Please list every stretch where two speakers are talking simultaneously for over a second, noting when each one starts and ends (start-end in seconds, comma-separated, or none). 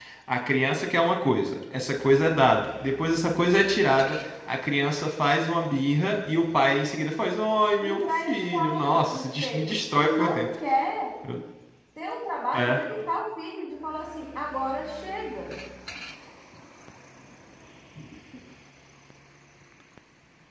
7.8-10.5